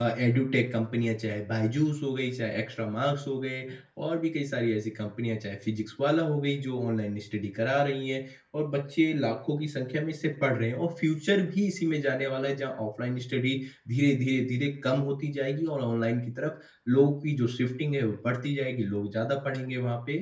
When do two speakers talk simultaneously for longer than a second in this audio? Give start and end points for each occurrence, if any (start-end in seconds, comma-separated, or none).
none